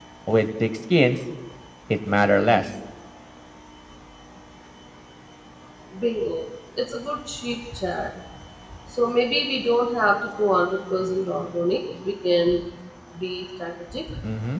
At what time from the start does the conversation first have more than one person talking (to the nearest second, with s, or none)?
none